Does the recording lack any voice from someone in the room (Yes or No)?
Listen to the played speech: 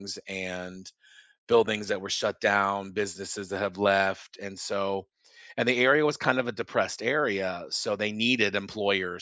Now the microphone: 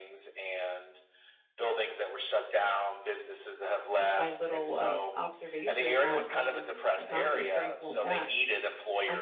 No